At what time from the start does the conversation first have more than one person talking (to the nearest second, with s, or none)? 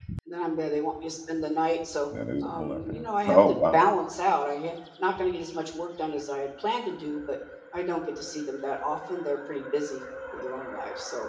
2 s